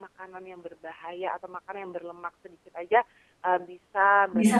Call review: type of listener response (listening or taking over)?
listening